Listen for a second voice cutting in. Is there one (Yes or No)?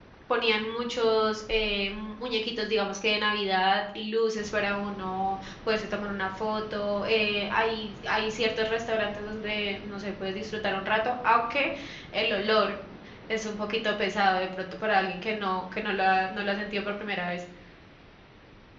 No